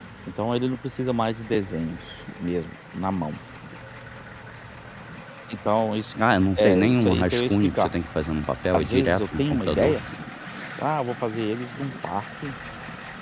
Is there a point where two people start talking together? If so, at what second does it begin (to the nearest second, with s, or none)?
7 s